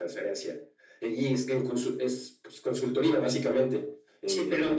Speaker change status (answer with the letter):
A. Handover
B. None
A